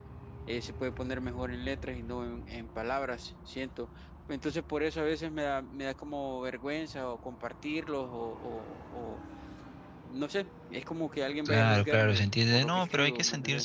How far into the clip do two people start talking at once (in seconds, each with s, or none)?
11.4 s